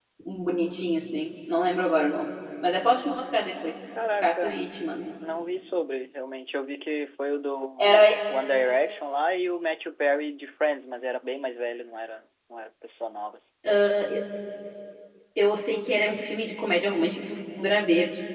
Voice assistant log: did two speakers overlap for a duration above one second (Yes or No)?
No